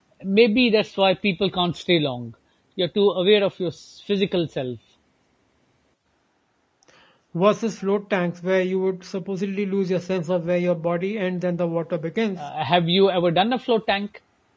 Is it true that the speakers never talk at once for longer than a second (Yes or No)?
Yes